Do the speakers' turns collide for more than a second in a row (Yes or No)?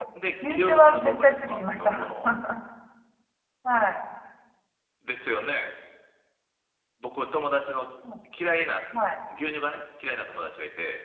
Yes